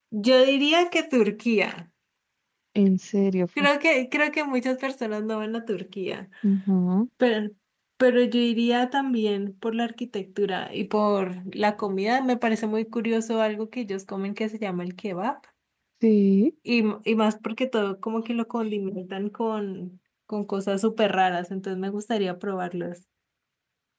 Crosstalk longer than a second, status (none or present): none